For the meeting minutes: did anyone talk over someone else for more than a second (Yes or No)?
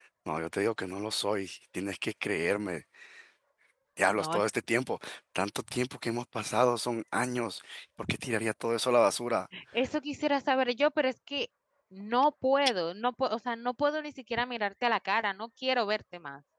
No